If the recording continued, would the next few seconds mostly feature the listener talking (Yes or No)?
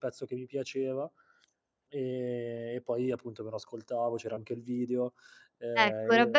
Yes